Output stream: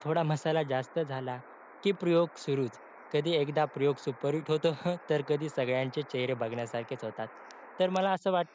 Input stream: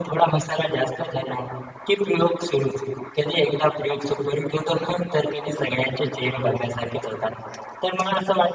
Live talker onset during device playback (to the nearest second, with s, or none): none